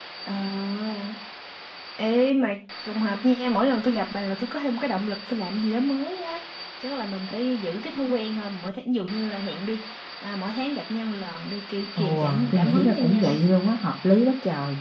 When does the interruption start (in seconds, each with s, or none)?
11.9 s